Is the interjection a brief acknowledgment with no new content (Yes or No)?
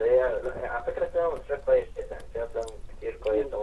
Yes